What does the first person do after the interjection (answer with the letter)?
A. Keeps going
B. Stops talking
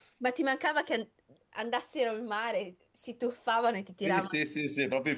B